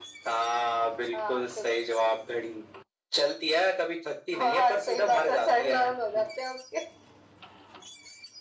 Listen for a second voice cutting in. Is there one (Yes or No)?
Yes